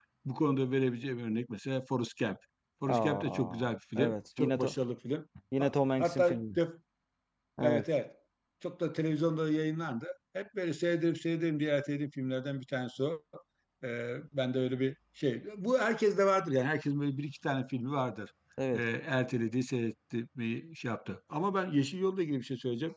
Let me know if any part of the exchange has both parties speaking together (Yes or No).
Yes